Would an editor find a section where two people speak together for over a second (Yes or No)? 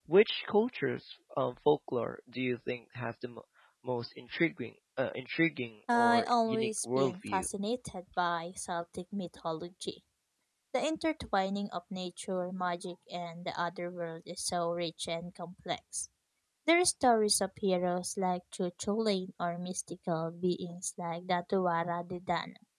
Yes